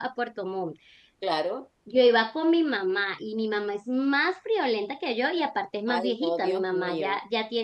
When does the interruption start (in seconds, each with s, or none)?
5.9 s